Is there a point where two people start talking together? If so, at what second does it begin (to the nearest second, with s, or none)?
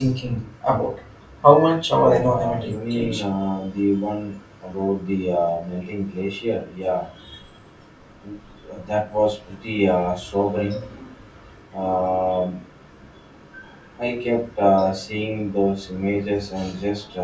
2 s